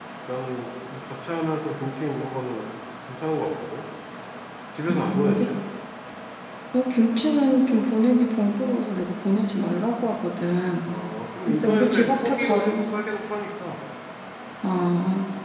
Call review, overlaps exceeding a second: present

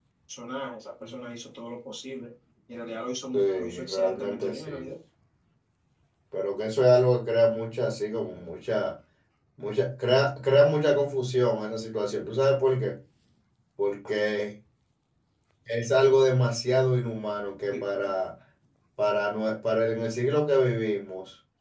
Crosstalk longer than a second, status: present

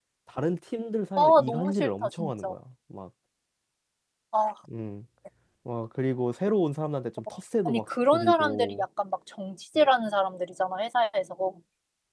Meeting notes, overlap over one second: present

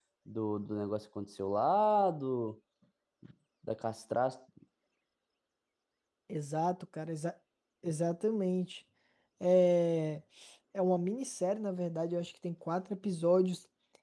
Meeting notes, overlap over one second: none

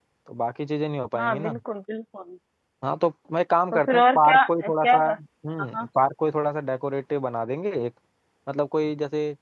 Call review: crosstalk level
present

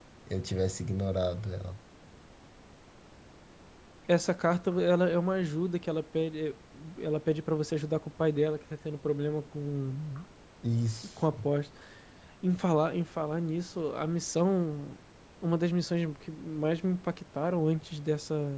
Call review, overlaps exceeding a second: none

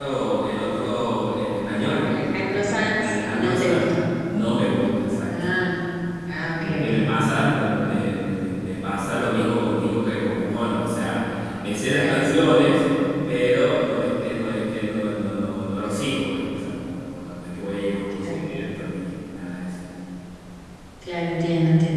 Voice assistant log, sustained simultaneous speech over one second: present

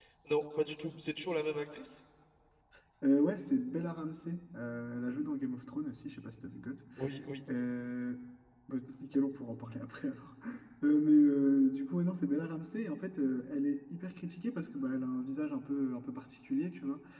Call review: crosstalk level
none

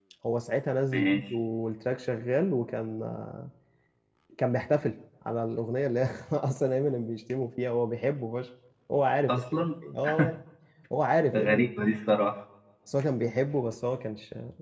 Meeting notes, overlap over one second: none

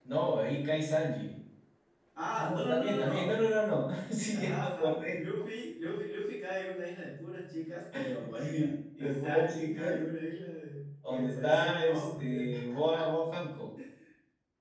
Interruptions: present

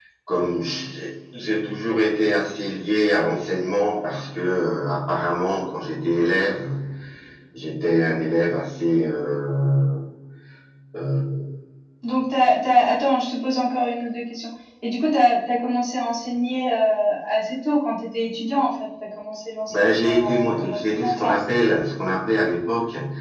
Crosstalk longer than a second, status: present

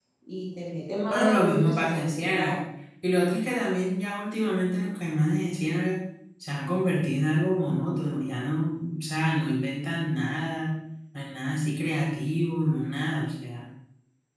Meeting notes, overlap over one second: present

